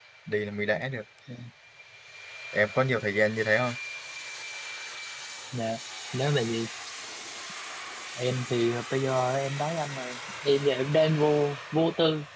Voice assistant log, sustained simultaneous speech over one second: none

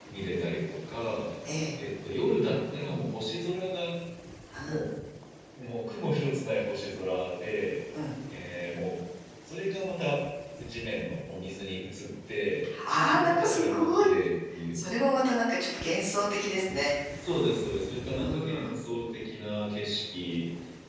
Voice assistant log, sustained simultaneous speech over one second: present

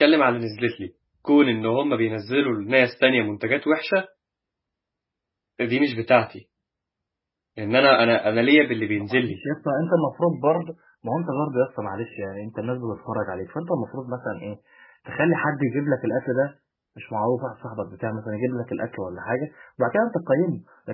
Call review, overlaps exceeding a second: none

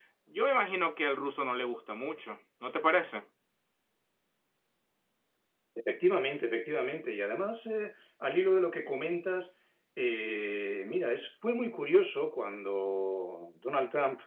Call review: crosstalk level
none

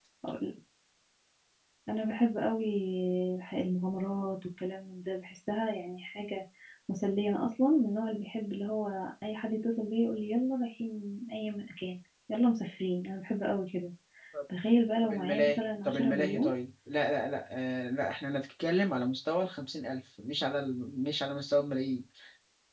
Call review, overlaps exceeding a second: present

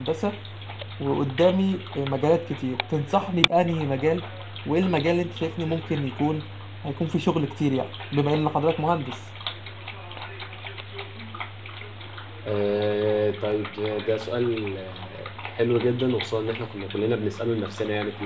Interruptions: none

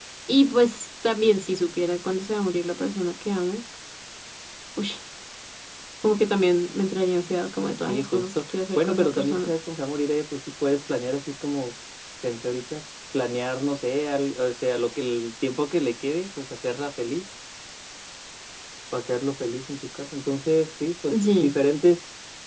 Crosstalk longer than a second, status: present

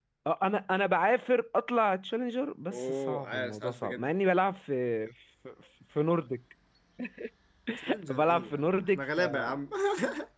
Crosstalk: present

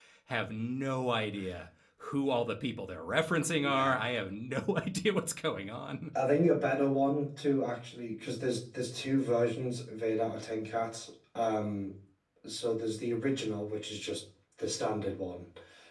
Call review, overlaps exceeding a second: none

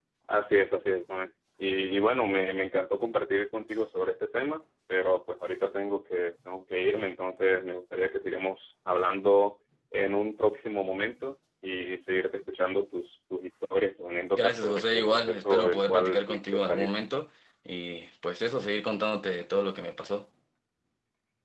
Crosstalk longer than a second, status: present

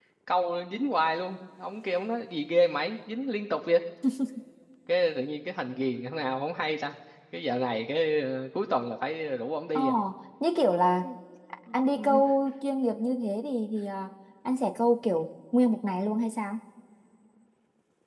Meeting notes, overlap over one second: none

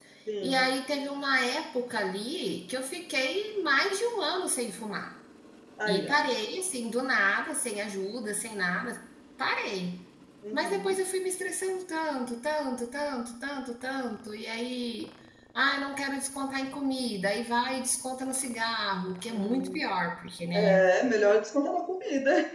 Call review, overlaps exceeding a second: none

